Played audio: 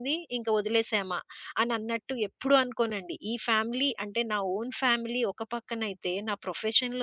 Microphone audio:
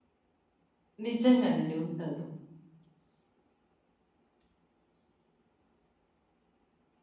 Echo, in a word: none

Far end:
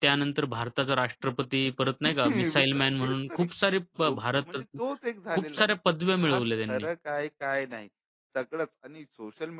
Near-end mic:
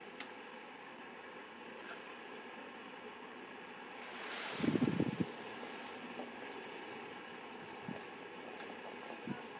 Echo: none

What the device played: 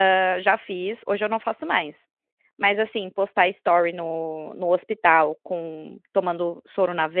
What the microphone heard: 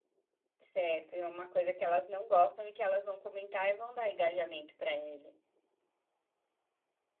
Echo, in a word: none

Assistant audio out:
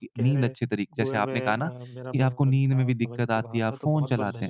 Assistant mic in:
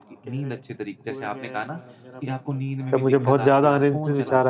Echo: present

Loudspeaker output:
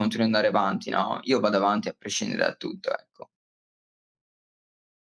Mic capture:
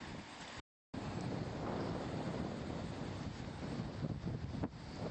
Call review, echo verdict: none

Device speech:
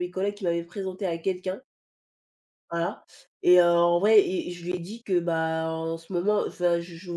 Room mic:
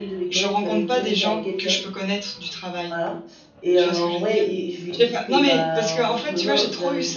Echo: present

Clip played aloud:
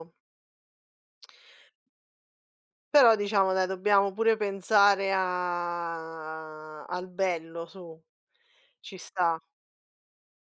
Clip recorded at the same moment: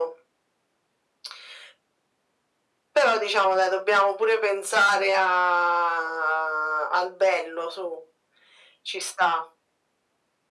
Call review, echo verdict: present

